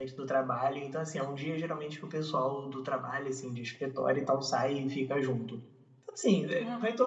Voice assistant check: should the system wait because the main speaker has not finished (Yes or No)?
Yes